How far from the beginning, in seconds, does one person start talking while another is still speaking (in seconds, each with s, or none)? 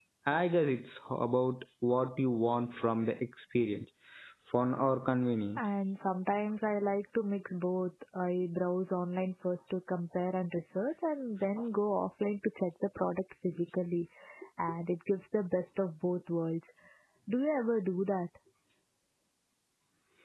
none